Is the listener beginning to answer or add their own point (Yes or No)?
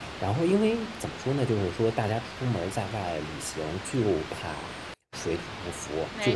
No